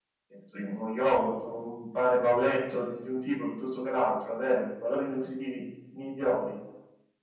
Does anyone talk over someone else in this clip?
No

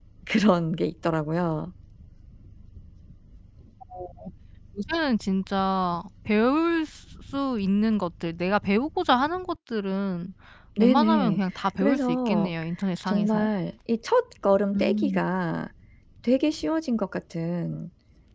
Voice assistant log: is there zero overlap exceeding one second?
No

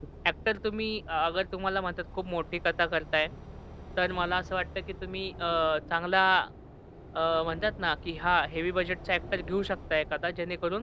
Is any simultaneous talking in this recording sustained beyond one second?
No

